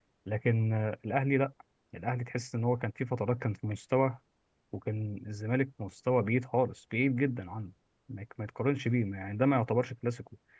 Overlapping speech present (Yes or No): No